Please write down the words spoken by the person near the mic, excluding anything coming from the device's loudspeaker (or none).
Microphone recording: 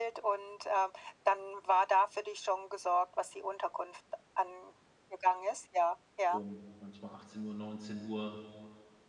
um manchmal 18:00, 19:00,